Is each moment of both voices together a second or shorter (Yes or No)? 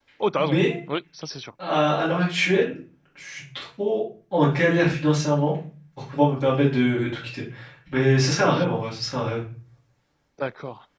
Yes